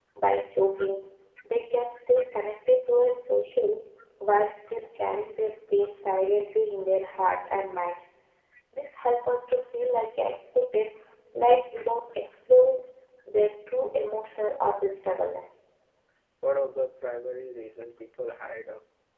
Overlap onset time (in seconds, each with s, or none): none